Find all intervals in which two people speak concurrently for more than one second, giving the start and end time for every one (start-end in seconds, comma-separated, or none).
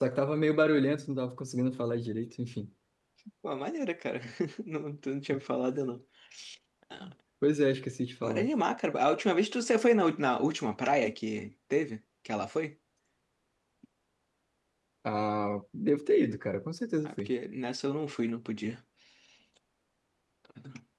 none